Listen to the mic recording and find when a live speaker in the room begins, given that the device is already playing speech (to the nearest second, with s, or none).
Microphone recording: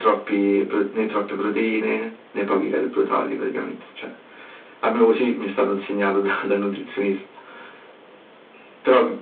none